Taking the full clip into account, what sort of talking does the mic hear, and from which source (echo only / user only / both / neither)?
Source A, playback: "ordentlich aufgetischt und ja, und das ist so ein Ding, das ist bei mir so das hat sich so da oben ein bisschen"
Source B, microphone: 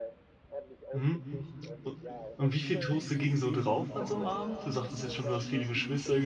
both